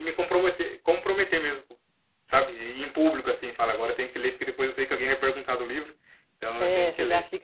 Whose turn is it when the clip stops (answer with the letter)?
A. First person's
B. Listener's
B